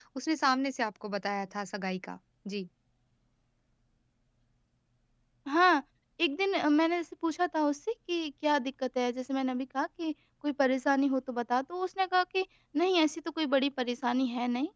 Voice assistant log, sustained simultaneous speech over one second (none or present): none